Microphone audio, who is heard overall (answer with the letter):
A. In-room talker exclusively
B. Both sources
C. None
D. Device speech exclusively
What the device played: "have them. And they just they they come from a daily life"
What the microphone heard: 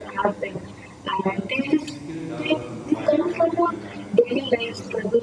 B